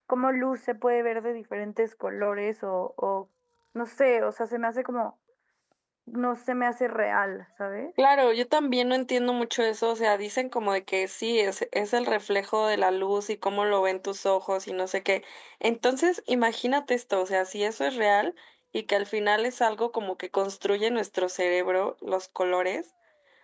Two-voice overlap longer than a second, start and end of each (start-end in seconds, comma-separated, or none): none